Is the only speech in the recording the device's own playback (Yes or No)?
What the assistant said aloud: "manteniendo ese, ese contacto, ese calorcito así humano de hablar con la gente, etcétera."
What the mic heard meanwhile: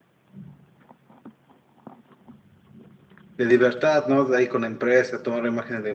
No